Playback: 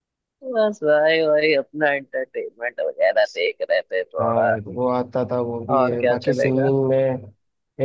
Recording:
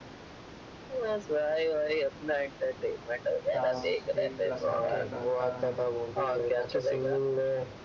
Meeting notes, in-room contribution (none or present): present